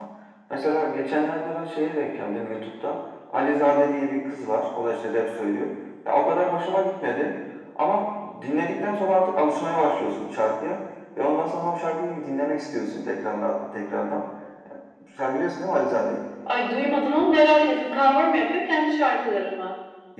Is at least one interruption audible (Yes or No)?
No